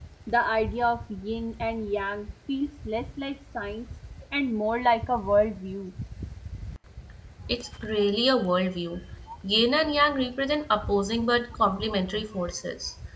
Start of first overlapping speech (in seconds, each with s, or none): none